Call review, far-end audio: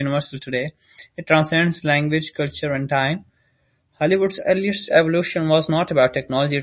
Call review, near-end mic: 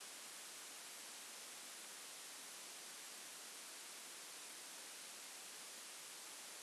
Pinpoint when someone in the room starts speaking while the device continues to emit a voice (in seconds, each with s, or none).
none